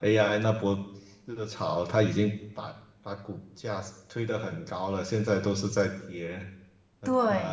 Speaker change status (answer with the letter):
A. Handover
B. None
A